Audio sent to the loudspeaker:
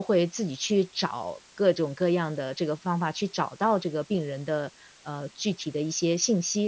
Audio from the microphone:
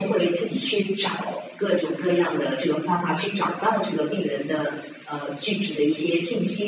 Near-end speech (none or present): none